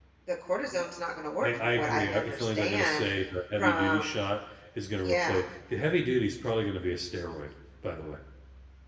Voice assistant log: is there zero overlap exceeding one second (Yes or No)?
No